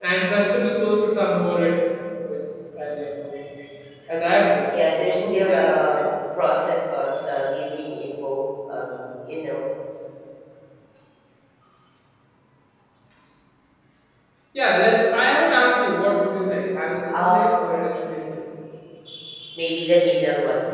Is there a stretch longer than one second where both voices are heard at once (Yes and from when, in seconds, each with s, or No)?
Yes, from 4.7 s